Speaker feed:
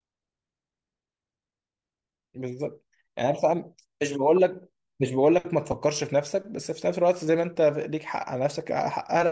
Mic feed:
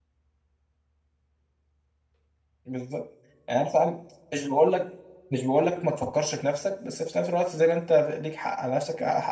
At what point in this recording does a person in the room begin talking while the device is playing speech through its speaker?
none

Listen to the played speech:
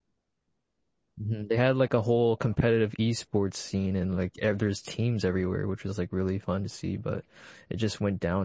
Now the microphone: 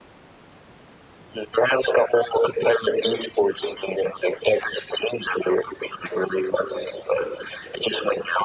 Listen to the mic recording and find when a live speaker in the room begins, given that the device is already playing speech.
none

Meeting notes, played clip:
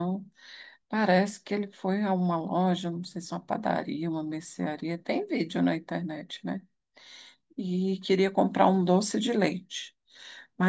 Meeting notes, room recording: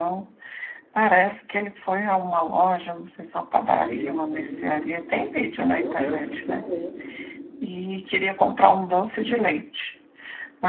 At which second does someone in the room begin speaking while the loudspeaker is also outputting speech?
3.6 s

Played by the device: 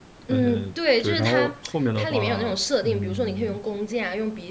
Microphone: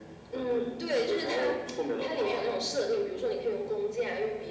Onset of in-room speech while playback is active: none

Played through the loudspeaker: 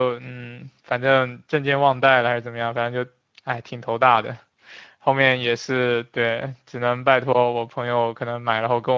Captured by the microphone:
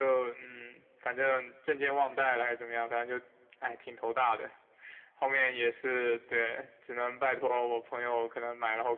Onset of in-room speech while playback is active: none

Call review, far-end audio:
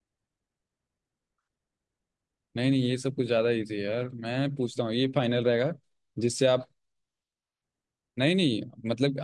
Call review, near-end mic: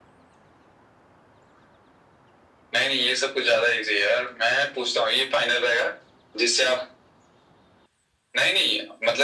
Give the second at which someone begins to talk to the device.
none

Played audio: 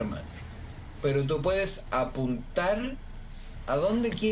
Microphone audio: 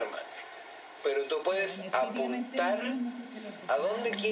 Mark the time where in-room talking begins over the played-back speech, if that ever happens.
1.5 s

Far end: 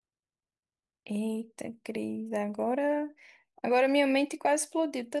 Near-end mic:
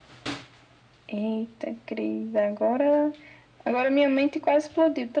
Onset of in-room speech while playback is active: none

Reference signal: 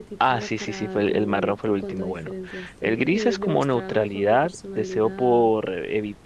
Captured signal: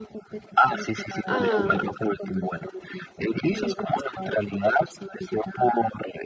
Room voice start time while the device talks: 1.2 s

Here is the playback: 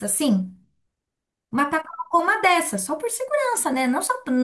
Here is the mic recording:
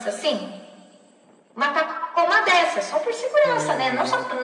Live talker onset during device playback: 3.4 s

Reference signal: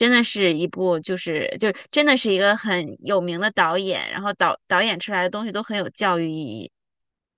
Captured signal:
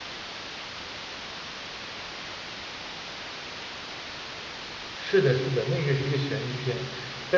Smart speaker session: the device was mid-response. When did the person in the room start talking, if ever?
4.9 s

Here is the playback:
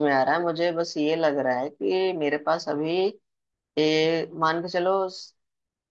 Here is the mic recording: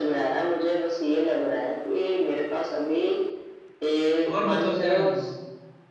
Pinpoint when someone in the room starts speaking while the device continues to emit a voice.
4.3 s

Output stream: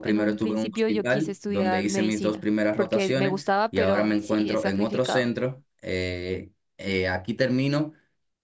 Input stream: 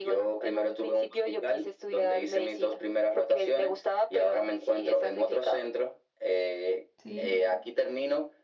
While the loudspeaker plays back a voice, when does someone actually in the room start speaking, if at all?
7.0 s

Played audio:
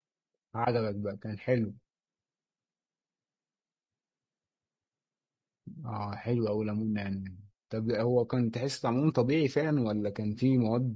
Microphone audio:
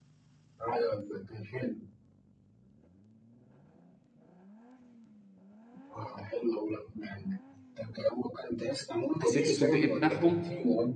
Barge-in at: 9.2 s

